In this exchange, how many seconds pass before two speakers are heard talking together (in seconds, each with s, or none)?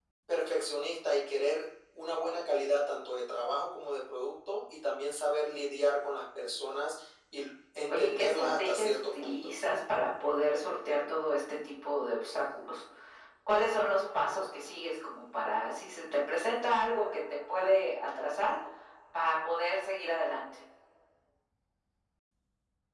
7.9 s